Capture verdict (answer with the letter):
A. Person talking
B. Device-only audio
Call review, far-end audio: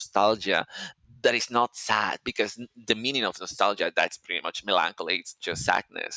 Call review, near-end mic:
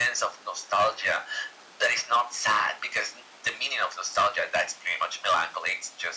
B